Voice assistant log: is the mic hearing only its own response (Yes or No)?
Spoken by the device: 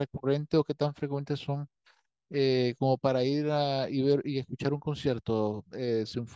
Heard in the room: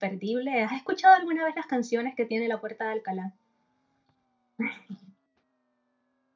No